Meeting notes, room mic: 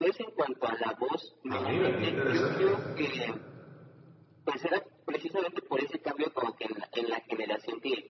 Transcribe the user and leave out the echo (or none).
Ah, mira, qué interesante.